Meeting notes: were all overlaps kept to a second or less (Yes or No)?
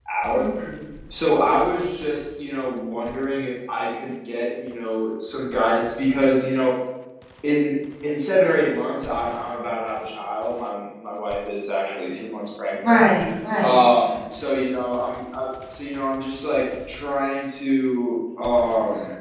Yes